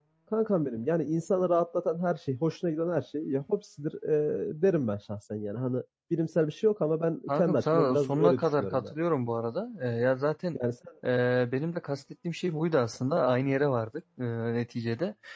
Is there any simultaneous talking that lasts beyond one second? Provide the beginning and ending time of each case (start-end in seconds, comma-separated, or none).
7.3-8.9